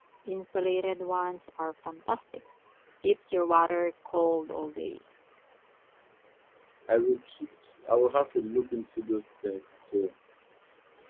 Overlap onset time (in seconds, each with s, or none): none